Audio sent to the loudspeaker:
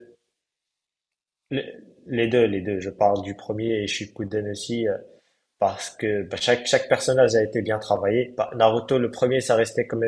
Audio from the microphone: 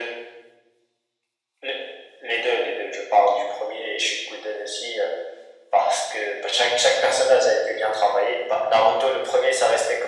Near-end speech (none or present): none